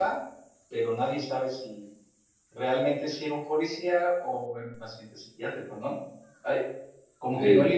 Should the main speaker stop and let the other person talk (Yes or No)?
No